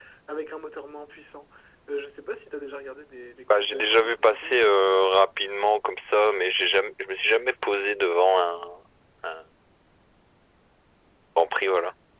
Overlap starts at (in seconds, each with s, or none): 3.5 s